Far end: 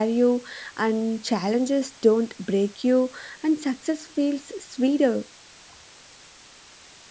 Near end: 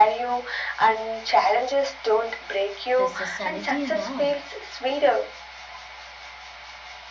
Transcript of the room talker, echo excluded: their sanity and all.

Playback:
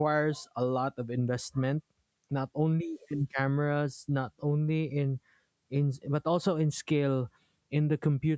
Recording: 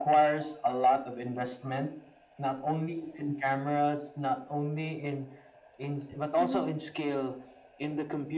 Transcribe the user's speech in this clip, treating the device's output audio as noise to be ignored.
hmm

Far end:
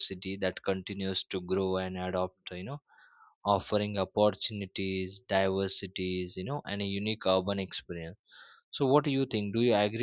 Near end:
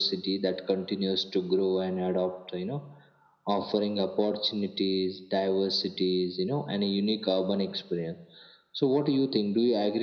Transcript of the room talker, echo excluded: none

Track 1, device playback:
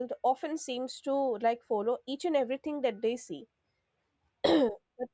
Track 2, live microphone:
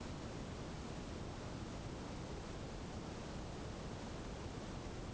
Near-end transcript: none

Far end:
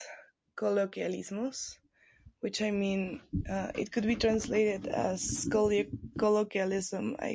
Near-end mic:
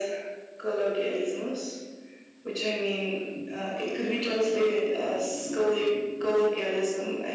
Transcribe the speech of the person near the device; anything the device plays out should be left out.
none

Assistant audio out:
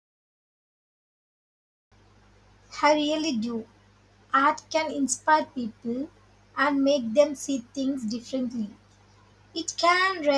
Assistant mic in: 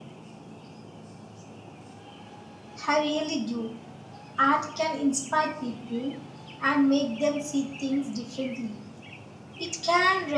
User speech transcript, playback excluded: none

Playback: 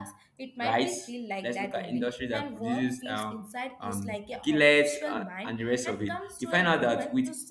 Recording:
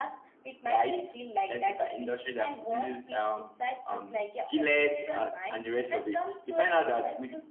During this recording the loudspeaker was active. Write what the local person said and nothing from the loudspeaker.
none

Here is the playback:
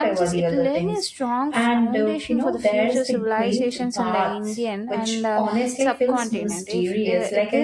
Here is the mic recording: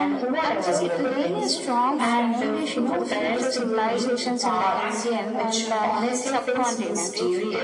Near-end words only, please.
so they even had inspections hole can you just imagine that level of planning

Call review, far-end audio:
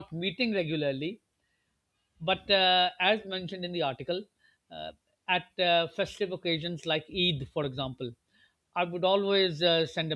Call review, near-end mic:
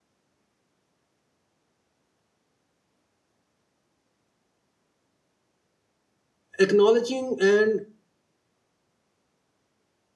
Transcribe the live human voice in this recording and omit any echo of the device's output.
acknowledging and

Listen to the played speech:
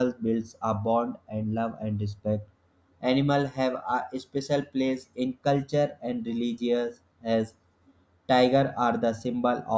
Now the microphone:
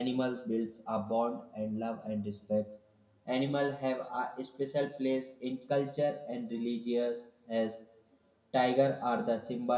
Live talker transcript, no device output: none

